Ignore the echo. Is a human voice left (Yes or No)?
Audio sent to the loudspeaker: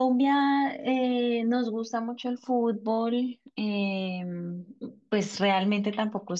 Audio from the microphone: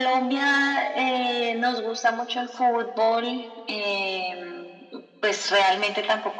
No